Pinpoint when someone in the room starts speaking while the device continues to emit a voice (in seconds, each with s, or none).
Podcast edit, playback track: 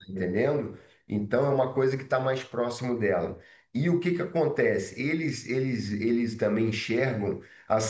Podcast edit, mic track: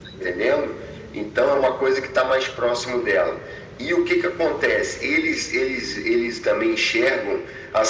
none